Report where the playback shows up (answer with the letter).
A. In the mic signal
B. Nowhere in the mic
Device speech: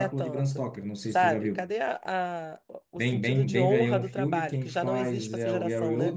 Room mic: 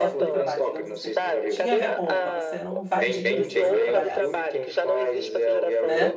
A